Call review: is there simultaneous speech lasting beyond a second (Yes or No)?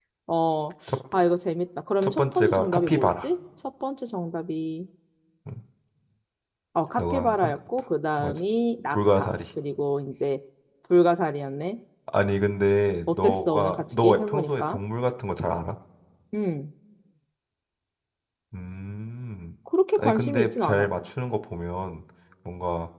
Yes